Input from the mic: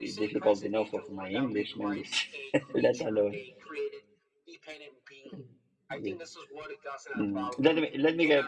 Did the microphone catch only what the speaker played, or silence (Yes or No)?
No